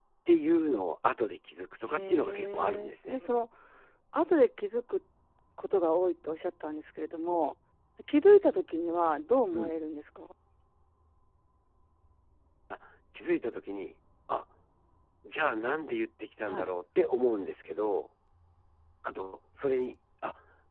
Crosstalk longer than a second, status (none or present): present